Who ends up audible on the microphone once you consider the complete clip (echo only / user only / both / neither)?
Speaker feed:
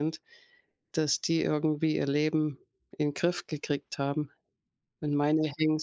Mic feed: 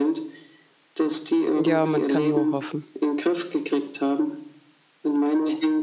both